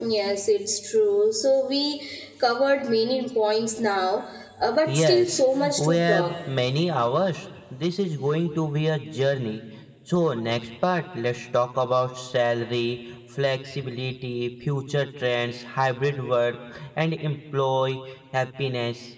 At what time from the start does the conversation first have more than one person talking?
4.9 s

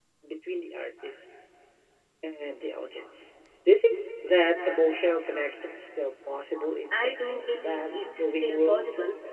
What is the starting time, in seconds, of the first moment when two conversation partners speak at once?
6.9 s

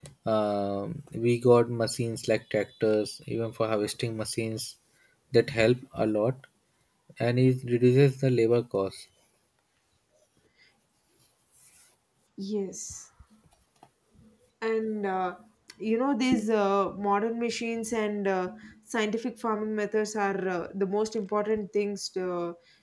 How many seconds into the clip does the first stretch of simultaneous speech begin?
none

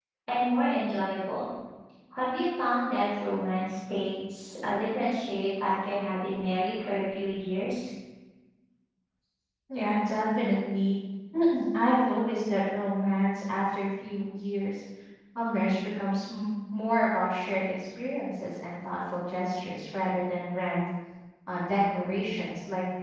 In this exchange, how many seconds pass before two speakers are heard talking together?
none

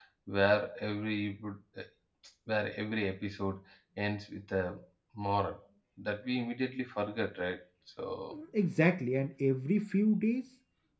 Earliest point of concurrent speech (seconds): none

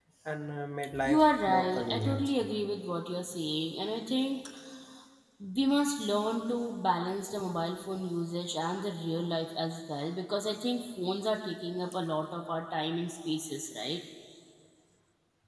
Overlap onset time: 1.0 s

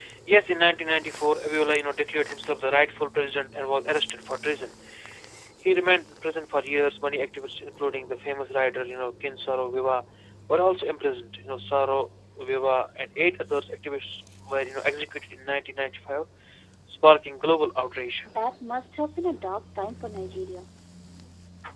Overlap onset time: none

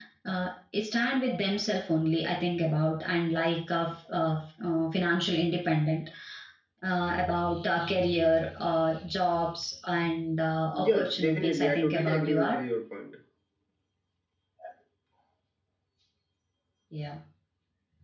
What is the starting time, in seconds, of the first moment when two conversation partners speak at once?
10.7 s

